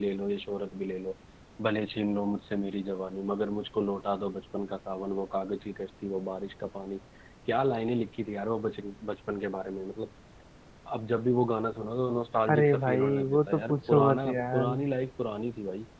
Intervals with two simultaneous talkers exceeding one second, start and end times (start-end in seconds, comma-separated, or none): 12.5-14.6